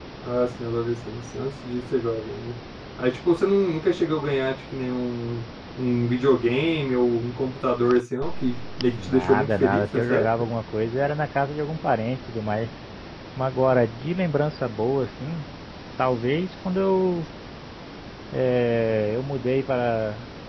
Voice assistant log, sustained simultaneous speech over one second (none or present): present